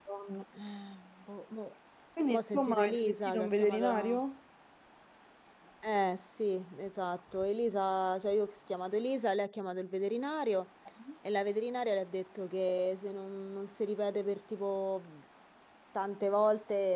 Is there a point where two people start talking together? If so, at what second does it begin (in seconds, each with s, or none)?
2.3 s